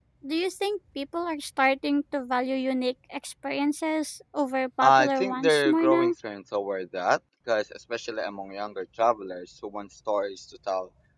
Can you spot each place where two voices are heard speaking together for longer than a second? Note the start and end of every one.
4.8-6.1

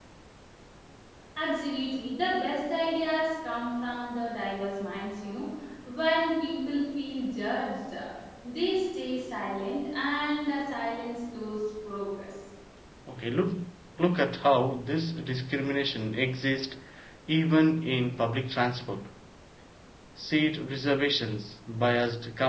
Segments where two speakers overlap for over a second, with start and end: none

